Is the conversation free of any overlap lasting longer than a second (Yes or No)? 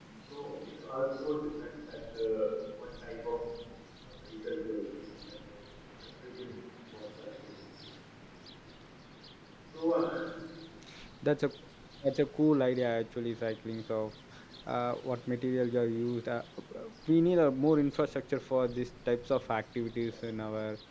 Yes